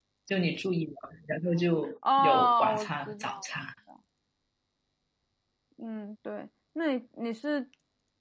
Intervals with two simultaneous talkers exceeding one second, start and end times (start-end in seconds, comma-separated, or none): 2.2-3.5